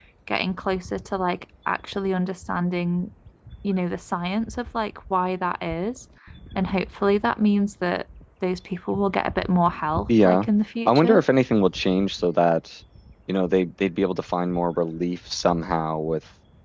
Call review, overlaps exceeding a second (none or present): none